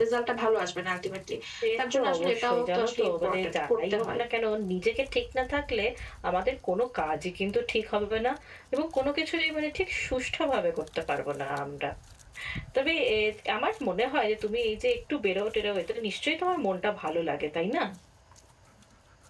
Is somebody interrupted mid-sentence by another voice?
Yes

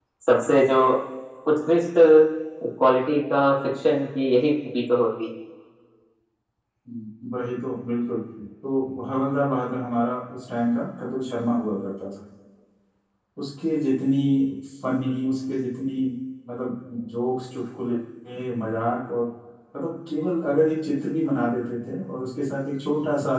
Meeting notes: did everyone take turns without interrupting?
Yes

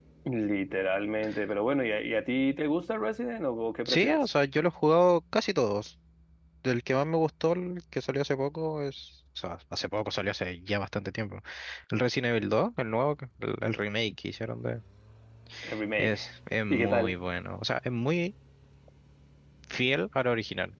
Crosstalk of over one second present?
No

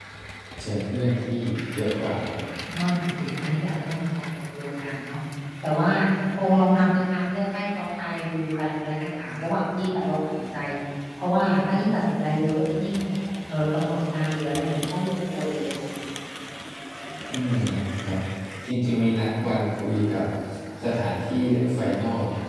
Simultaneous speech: No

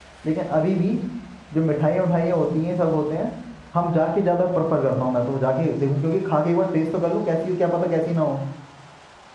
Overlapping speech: No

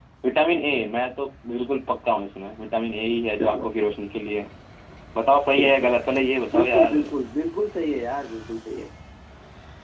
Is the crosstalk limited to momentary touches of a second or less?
Yes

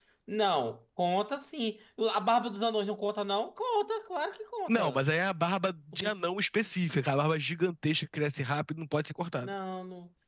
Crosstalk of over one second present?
No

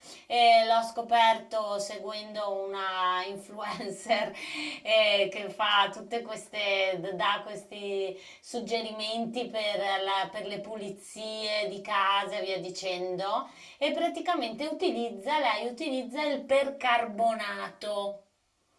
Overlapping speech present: No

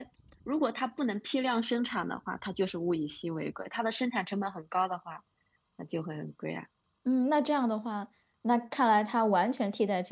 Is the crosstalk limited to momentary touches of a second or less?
Yes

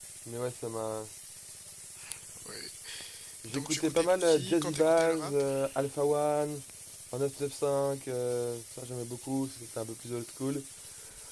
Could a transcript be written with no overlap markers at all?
No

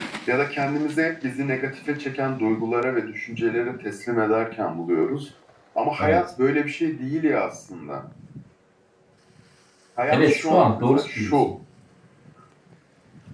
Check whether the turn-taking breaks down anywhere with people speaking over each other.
Yes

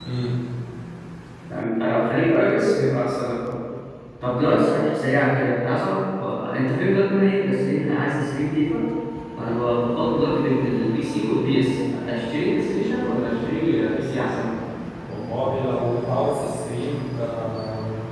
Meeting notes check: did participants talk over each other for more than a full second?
No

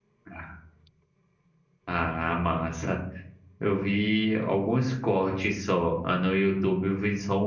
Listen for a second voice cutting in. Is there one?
No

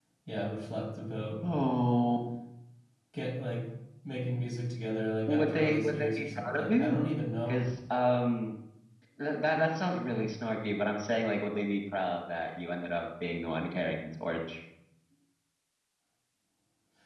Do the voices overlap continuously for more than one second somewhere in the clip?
Yes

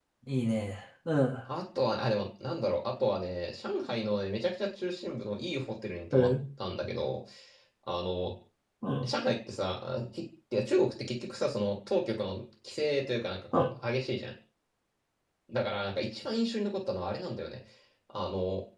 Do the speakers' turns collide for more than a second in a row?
No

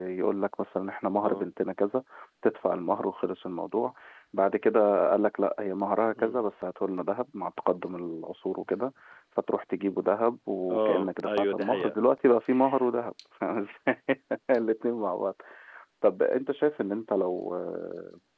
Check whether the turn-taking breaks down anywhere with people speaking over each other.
Yes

